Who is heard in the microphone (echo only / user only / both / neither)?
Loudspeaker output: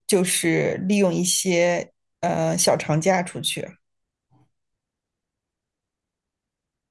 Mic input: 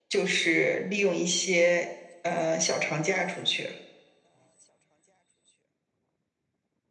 echo only